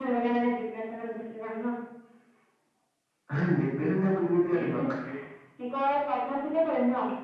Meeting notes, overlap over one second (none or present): none